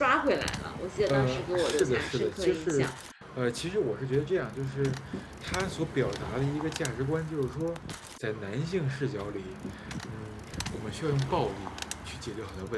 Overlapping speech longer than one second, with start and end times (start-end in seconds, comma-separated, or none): 1.1-2.9